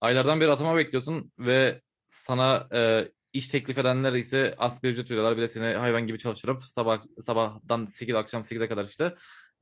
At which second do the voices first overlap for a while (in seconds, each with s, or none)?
none